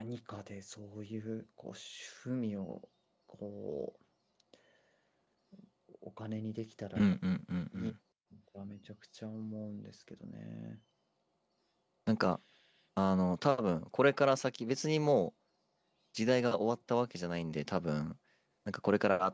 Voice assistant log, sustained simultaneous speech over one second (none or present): none